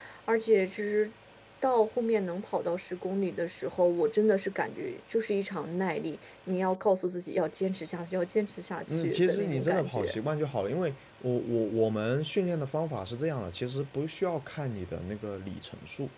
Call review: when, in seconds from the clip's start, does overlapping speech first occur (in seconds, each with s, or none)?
8.9 s